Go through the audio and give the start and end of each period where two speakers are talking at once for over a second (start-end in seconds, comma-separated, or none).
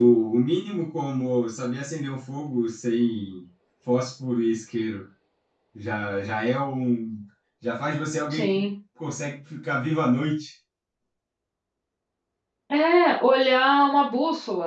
none